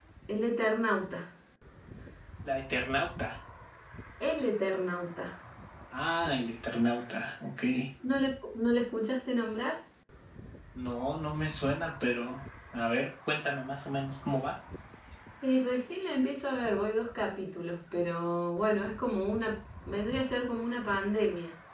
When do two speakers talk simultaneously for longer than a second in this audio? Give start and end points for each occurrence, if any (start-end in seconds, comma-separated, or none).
none